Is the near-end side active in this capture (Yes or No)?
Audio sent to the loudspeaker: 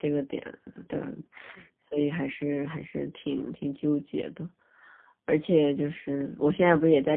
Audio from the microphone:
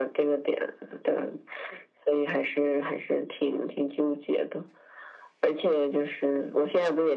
No